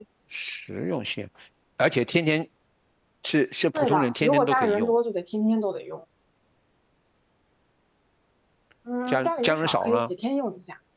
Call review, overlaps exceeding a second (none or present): present